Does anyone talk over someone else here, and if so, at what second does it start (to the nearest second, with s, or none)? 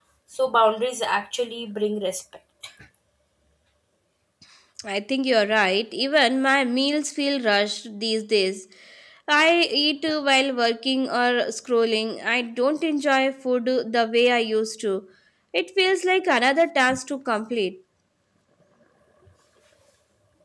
none